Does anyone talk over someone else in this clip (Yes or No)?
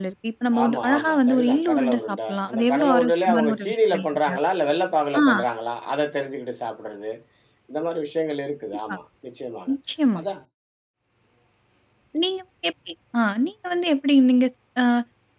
Yes